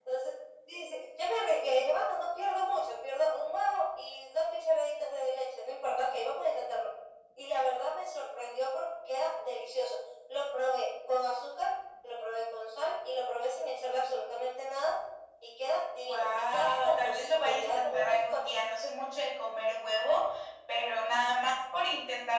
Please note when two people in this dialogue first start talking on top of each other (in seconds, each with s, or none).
16.0 s